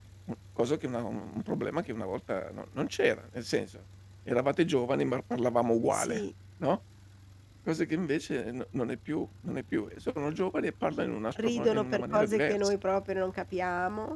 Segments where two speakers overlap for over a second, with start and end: 11.4-12.7

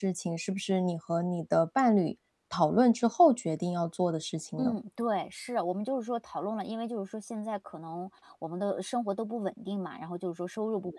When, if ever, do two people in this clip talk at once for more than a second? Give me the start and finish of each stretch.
none

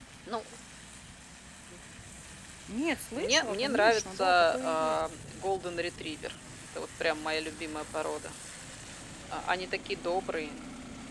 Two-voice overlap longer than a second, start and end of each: 3.2-4.9

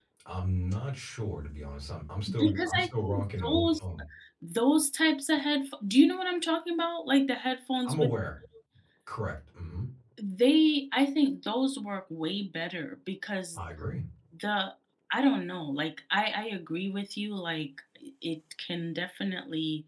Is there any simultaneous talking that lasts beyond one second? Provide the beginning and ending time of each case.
2.4-3.8

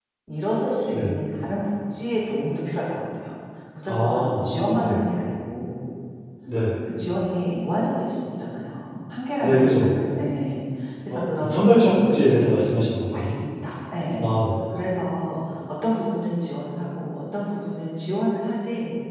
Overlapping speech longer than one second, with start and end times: none

